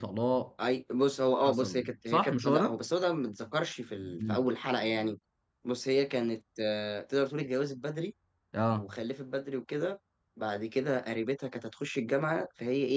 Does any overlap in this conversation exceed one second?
Yes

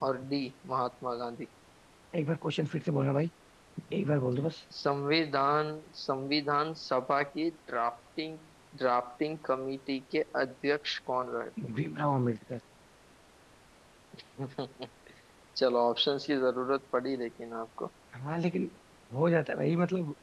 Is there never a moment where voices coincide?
Yes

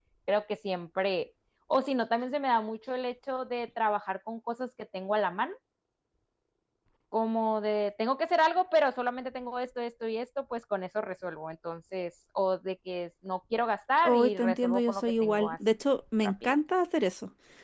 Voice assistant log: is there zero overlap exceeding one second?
No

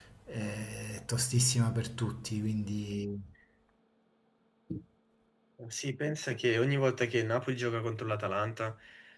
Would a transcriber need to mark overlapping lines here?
No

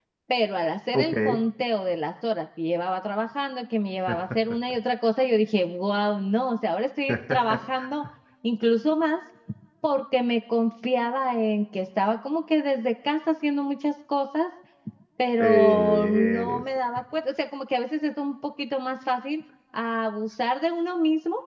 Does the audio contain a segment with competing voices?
Yes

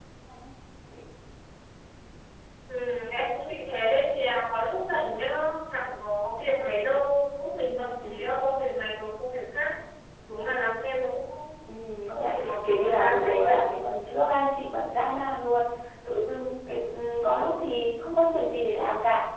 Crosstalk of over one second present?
Yes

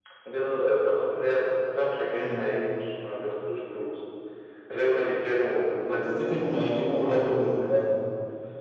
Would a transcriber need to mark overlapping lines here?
Yes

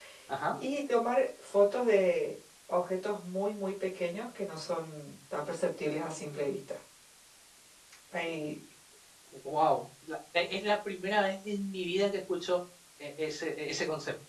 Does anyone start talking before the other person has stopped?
No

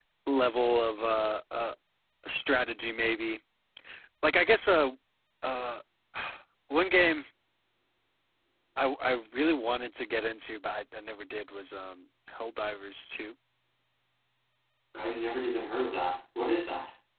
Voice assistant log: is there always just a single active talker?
Yes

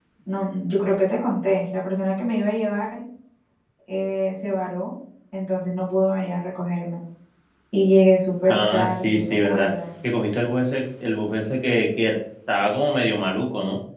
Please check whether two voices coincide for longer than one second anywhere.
Yes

